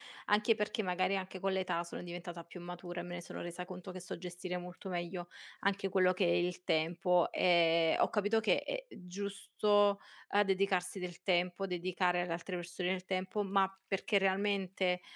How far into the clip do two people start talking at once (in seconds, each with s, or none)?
none